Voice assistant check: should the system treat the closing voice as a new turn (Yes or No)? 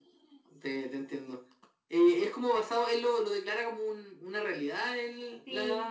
Yes